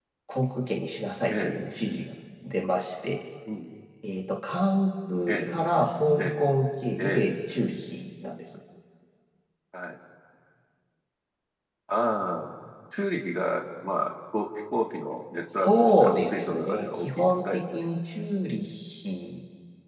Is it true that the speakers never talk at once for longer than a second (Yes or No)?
No